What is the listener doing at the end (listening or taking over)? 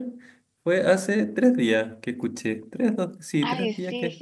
taking over